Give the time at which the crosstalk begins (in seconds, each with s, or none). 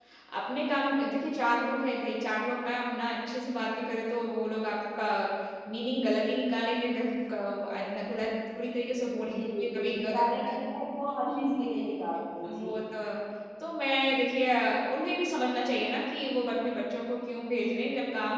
9.1 s